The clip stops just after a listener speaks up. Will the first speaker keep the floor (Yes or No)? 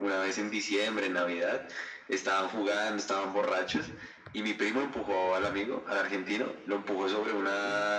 Yes